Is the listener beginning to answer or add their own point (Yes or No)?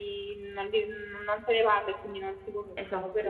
Yes